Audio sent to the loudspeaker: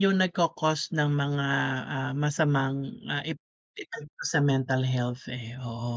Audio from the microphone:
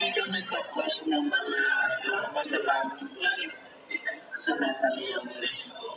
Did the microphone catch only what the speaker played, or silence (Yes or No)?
Yes